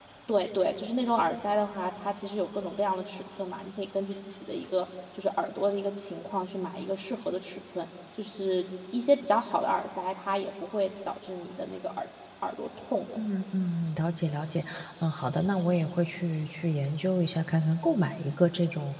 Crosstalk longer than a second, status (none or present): none